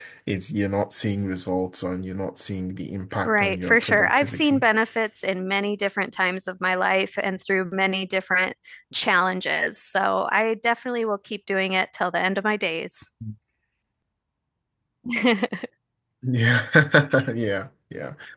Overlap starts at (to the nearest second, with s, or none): 3 s